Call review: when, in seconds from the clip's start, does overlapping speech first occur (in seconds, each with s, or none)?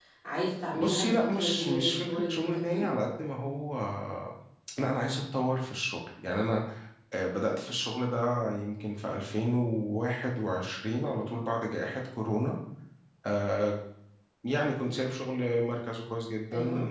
0.8 s